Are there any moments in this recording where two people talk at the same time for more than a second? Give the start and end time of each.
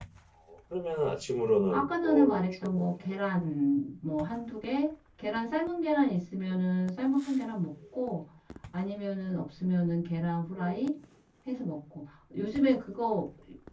1.7-2.9

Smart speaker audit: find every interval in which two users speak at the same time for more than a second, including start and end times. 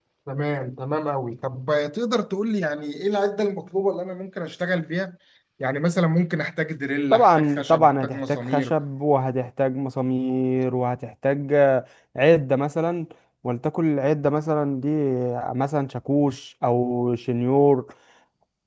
7.1-8.7

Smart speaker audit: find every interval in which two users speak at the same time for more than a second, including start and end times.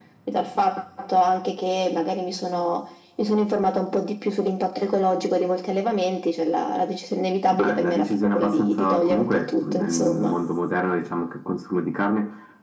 7.6-10.3

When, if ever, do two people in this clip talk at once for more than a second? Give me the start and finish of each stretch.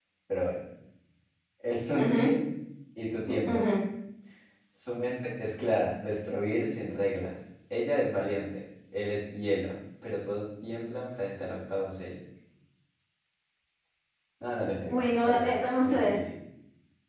14.9-16.2

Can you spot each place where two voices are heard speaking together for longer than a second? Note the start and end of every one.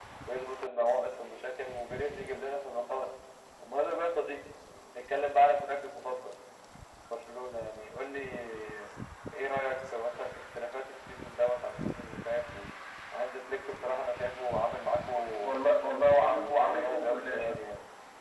16.2-17.6

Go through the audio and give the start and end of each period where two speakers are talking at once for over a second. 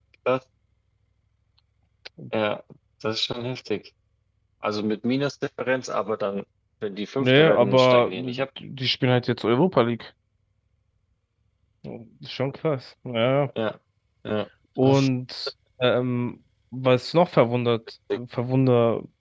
7.2-8.4

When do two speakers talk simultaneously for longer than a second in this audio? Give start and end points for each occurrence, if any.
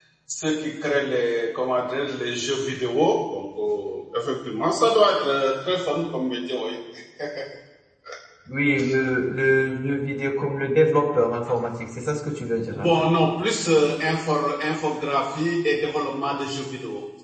none

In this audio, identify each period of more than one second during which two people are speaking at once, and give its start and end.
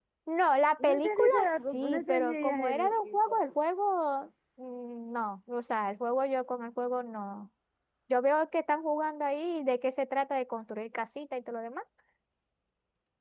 0.8-3.2

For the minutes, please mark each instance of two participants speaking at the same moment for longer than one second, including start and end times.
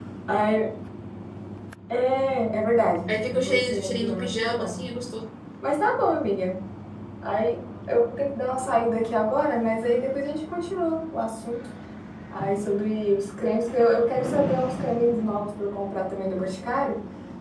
3.1-4.8

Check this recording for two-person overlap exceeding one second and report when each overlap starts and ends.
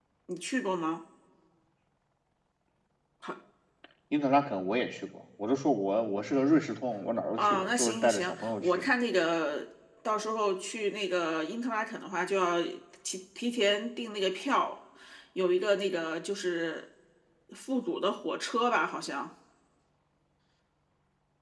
7.4-8.8

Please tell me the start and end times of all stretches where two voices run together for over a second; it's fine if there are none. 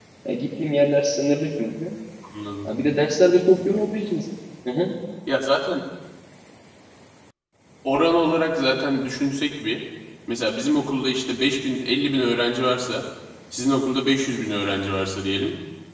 none

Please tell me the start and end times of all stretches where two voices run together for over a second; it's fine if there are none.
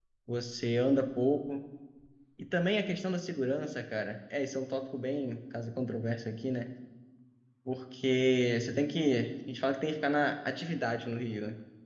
none

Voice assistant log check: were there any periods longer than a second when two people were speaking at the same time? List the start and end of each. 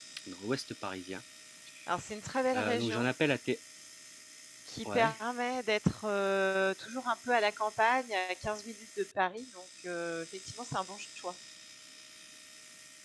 none

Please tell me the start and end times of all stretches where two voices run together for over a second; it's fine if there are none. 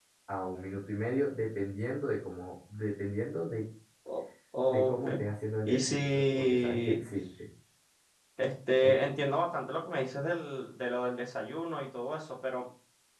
5.6-7.0

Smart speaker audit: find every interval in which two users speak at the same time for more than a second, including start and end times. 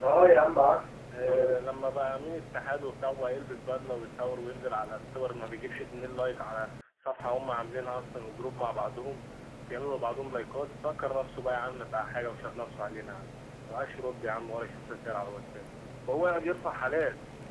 none

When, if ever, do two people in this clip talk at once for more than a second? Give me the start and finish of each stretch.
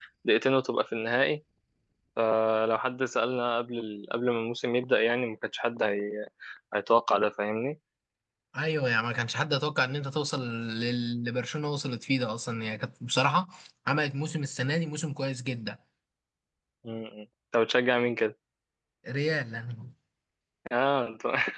none

